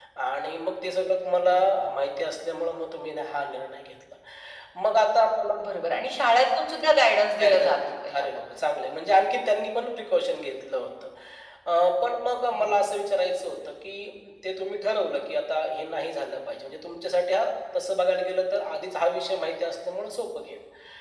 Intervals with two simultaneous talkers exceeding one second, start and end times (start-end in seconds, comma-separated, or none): 7.4-8.6